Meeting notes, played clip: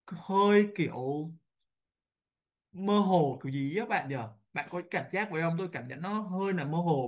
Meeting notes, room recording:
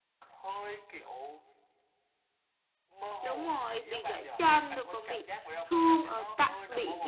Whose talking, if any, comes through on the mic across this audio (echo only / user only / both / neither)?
both